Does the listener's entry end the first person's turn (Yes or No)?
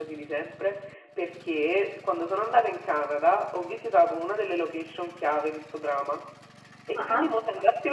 No